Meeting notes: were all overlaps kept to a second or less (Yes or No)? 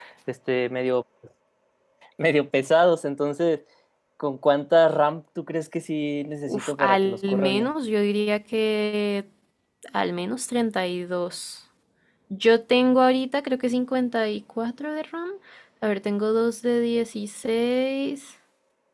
No